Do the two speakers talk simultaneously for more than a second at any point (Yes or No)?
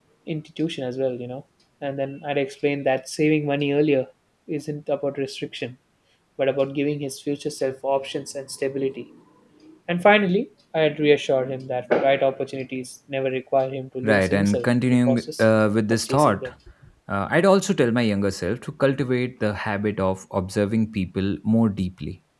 Yes